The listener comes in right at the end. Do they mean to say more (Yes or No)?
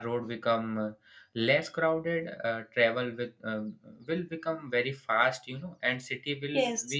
No